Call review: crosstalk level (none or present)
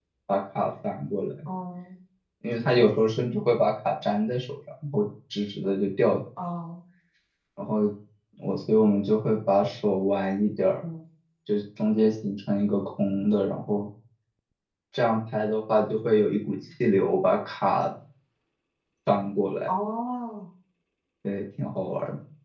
none